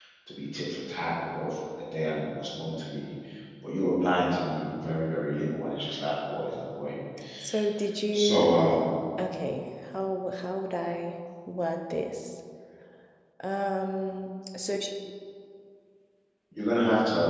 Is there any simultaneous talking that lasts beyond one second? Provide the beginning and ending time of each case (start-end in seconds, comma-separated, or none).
none